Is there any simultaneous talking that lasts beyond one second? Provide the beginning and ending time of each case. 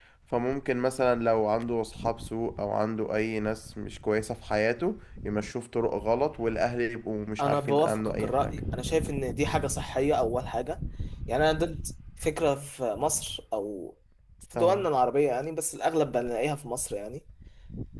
7.4-8.6

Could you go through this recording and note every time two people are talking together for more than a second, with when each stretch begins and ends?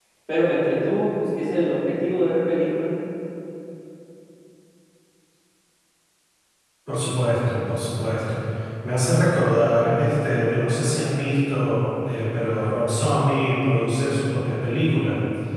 none

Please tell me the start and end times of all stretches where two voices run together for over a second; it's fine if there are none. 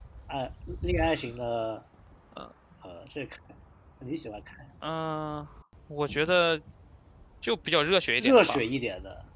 none

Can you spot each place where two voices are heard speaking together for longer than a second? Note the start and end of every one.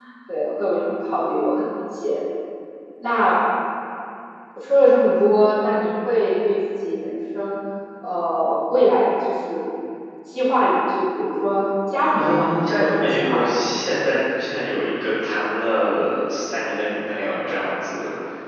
12.1-13.5

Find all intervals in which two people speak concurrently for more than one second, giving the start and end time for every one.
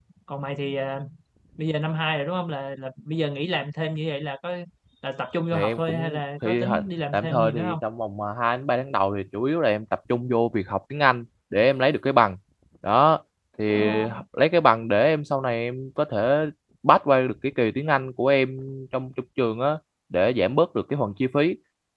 5.5-7.8

